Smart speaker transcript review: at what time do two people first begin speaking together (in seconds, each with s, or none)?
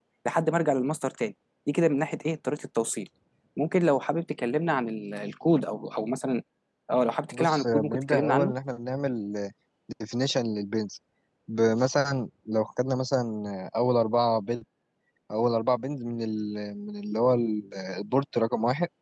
7.3 s